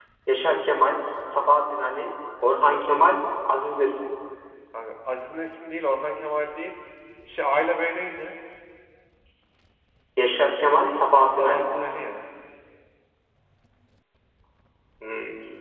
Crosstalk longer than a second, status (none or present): none